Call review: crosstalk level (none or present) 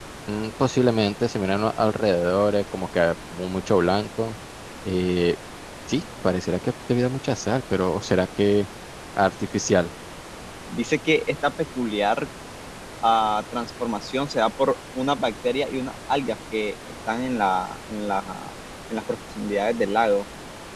none